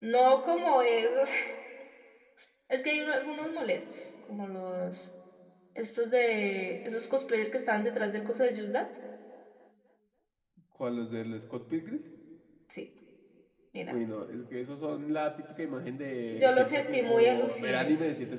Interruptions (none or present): present